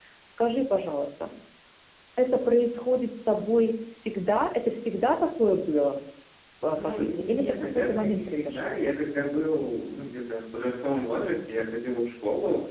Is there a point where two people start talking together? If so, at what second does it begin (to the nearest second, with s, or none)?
7 s